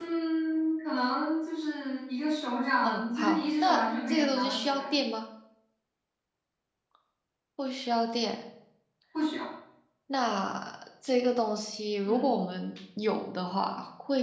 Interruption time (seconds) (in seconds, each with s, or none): 2.8 s